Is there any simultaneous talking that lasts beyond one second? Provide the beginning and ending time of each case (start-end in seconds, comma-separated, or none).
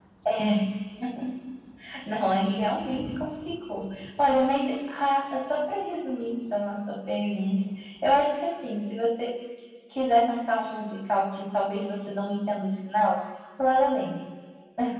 none